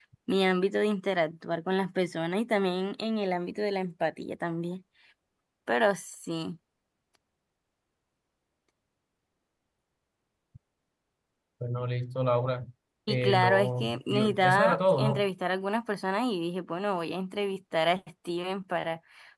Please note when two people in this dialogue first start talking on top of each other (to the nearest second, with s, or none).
13 s